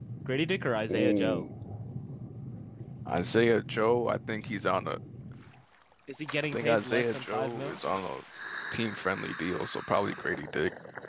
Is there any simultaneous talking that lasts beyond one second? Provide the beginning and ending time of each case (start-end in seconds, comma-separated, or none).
6.5-7.8